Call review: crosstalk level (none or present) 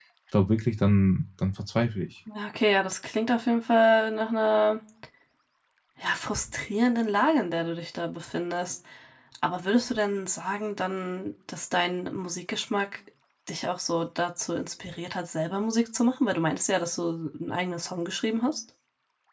none